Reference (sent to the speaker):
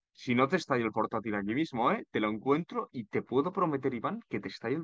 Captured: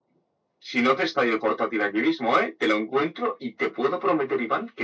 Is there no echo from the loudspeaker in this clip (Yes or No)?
No